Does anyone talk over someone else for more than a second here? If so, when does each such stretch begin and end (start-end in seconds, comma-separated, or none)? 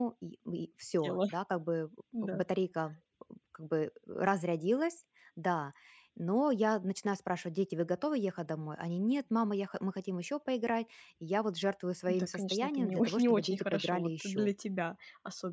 12.1-14.5